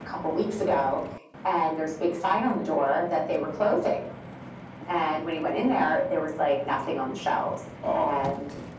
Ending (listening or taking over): listening